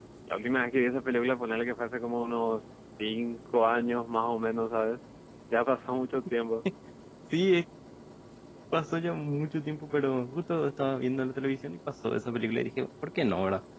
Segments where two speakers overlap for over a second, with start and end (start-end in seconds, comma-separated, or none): none